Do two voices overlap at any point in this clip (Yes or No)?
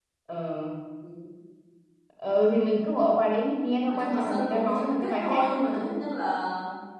Yes